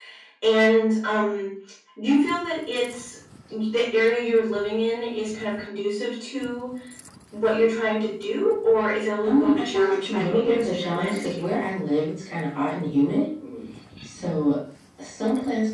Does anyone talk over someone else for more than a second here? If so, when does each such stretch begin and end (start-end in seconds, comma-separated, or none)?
9.2-11.3